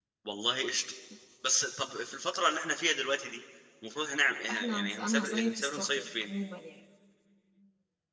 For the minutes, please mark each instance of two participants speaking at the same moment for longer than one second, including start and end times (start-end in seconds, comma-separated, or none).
4.5-6.3